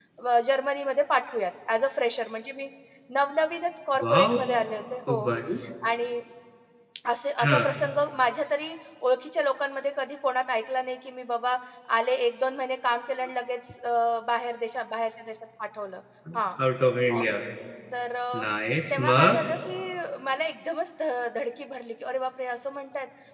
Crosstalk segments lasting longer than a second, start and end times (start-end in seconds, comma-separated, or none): none